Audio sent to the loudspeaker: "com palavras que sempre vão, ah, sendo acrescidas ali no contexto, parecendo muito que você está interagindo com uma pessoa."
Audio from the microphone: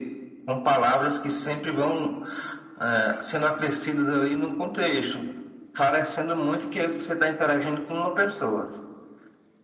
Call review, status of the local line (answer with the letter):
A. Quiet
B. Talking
A